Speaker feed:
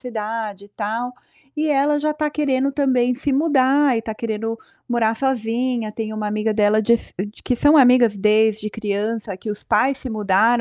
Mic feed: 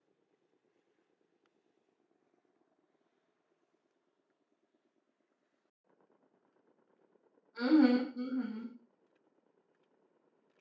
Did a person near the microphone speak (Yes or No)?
Yes